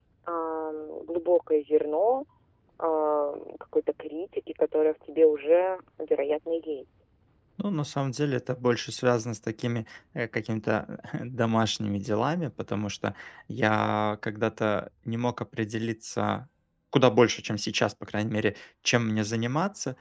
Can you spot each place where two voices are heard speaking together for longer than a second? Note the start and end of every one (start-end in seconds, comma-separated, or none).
none